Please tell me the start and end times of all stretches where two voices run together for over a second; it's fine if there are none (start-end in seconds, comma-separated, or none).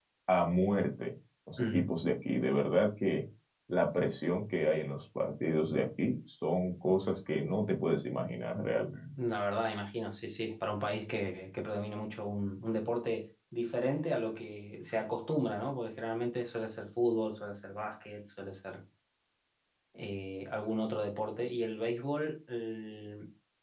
none